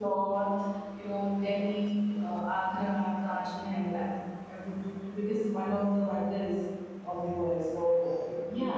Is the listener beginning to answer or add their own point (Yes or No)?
Yes